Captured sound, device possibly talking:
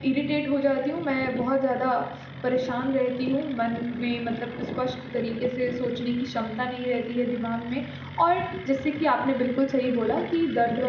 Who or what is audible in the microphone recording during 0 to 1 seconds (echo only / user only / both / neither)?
user only